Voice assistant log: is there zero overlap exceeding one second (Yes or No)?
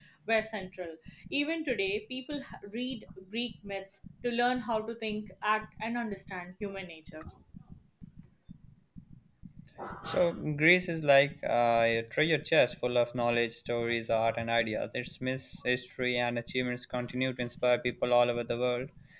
Yes